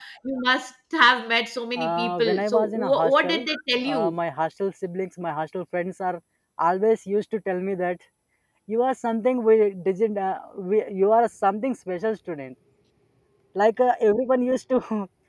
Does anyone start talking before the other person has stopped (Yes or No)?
Yes